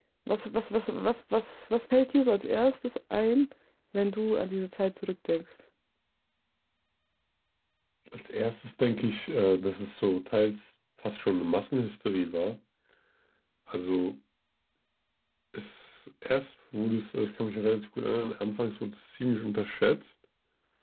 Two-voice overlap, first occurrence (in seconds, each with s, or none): none